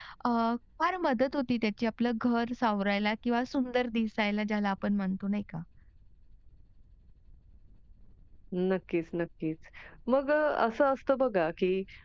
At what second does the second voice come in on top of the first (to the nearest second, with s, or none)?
none